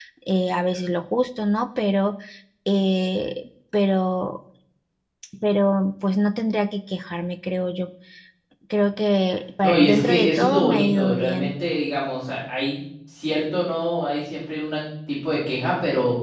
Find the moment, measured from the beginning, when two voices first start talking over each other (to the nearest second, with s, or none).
10 s